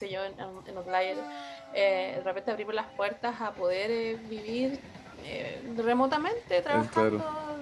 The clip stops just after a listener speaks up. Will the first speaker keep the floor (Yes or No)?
Yes